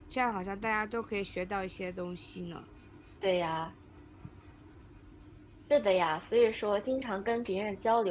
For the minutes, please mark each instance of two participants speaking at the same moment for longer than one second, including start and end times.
none

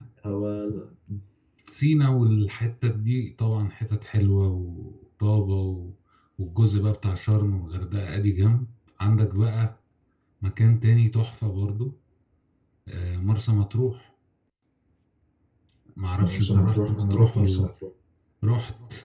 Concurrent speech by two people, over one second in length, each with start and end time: 16.2-17.7

